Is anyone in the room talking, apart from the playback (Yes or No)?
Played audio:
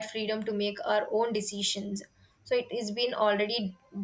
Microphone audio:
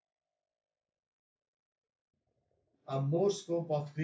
Yes